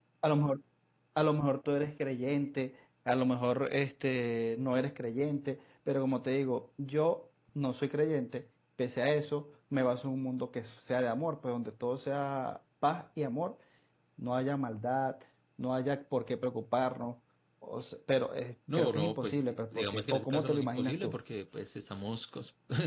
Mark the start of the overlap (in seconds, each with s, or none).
18.7 s